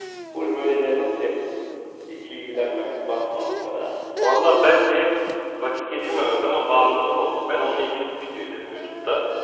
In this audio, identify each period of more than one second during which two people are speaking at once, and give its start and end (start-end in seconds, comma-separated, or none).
none